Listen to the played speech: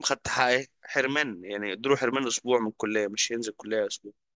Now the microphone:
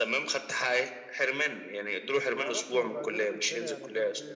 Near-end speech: present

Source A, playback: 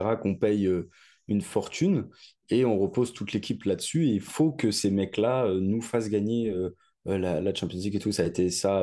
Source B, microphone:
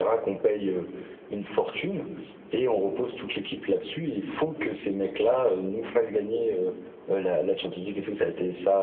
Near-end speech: none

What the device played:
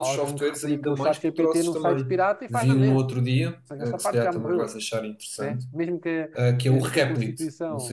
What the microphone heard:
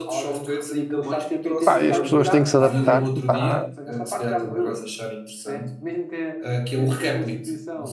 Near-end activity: present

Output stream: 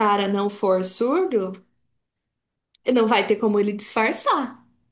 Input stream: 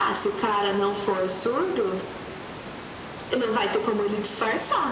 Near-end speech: none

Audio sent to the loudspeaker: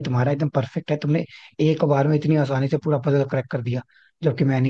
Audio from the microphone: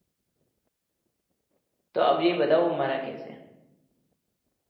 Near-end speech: present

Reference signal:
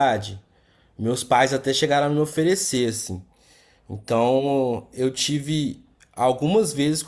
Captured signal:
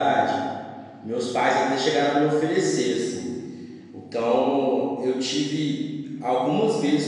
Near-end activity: none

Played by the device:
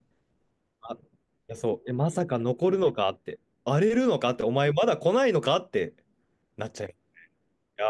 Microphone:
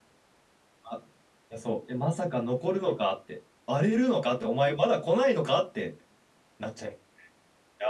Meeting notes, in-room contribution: none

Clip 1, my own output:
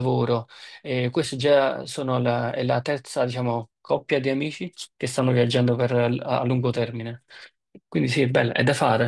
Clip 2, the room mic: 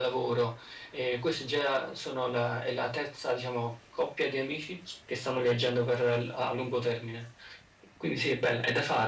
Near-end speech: none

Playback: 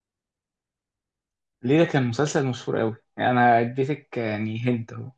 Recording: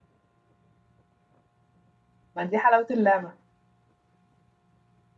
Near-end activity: present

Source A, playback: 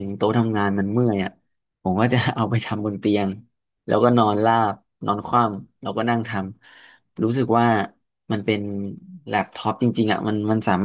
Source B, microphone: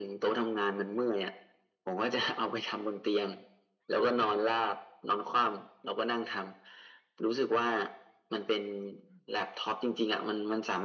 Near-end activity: none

